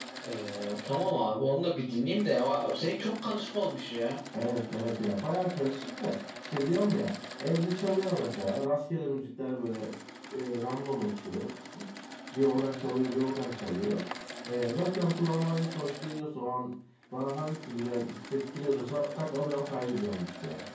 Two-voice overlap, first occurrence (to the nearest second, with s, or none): none